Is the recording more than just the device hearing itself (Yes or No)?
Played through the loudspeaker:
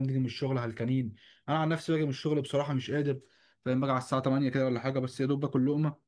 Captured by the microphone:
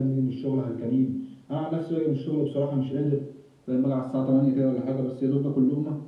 No